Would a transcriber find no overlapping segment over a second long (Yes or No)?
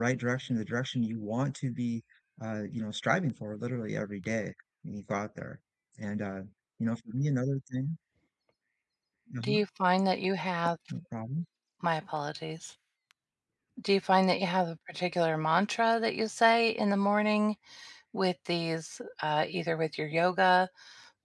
Yes